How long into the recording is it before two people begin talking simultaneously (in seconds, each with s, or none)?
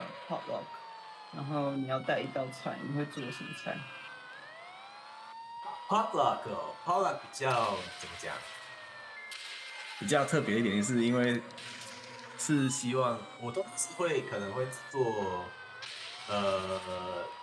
none